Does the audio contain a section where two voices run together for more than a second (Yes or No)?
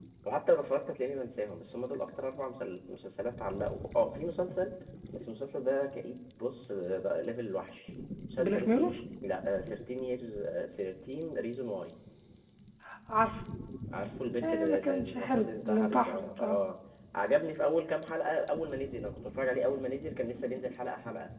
Yes